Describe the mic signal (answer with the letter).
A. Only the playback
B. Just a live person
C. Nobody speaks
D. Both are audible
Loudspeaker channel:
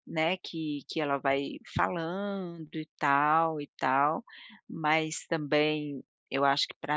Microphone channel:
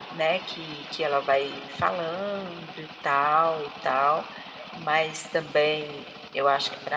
A